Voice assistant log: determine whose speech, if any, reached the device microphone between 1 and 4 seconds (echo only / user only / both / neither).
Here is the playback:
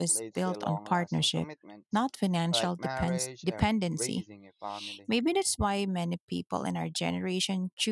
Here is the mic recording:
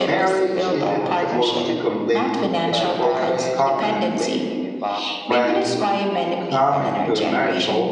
both